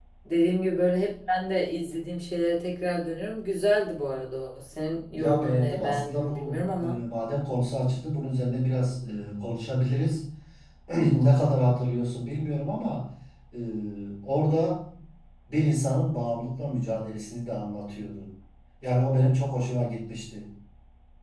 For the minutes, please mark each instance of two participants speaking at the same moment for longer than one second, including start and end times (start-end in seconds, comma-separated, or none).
5.1-7.0